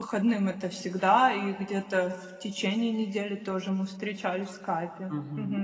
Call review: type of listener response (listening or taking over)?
taking over